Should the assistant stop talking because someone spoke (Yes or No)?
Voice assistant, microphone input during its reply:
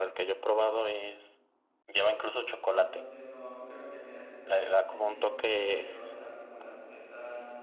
Yes